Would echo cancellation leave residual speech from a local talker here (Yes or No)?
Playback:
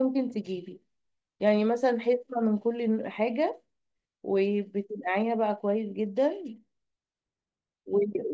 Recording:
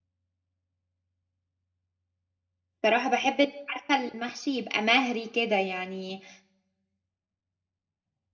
Yes